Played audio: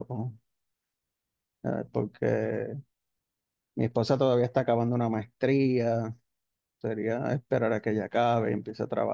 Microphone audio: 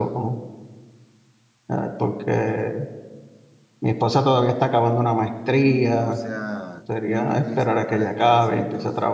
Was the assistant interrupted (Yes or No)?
Yes